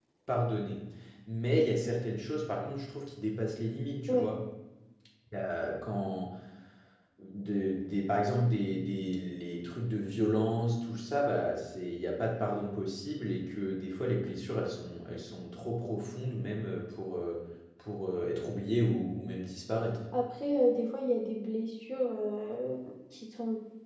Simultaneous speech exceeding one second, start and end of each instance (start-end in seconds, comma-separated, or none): none